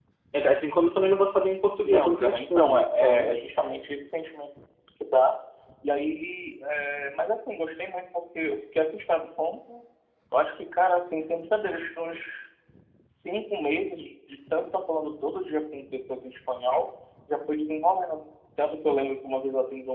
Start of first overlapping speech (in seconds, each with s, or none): 1.8 s